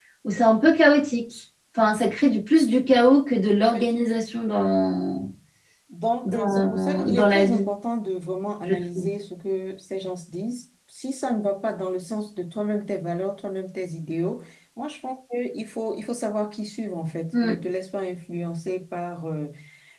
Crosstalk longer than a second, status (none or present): present